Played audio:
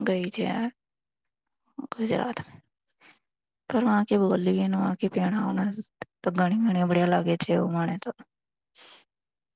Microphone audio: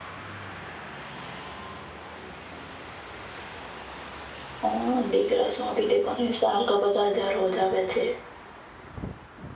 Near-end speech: present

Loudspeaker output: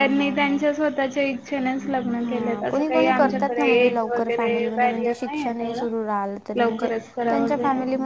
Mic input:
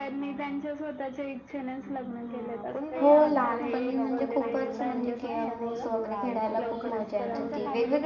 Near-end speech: present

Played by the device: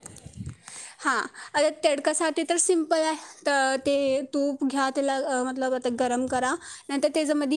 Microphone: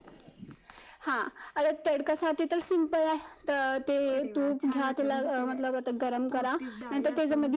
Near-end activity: present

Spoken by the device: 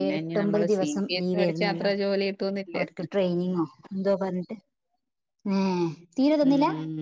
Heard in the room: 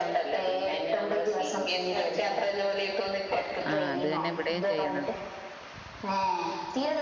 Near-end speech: present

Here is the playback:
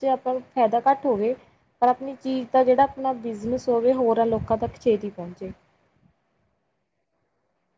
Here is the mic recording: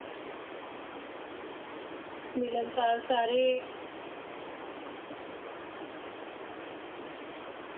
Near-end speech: present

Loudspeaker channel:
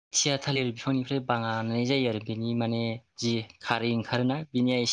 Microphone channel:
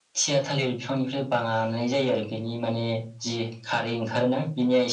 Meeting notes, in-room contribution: none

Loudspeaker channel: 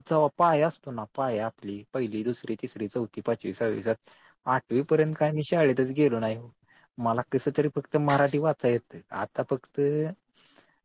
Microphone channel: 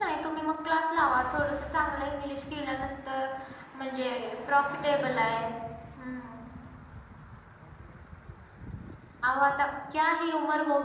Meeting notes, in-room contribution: present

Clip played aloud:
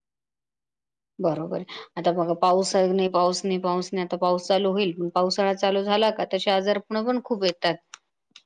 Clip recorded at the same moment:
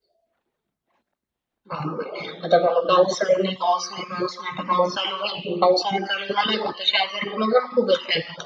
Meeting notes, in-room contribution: none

